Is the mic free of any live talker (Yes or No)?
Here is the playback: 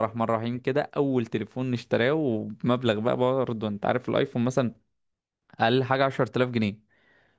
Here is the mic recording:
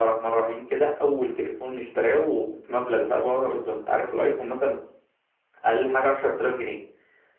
Yes